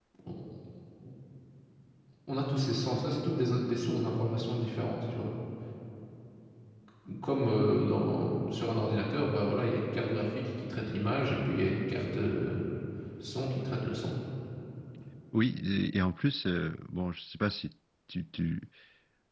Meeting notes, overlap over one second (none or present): none